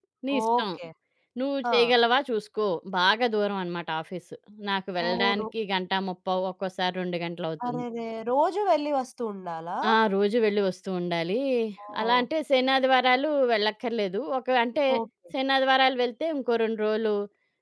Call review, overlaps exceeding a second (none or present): none